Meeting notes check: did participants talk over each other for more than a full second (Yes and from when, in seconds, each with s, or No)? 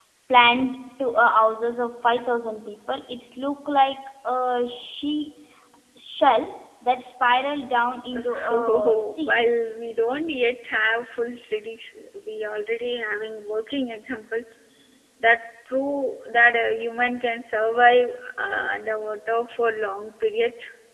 Yes, from 8.1 s